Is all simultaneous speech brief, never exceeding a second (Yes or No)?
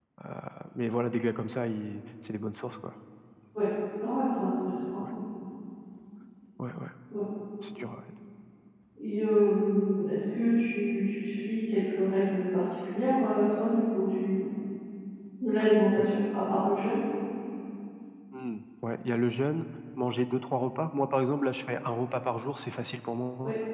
Yes